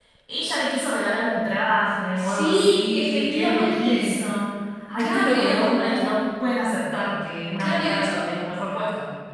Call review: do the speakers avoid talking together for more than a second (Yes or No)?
No